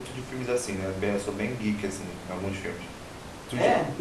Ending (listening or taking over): listening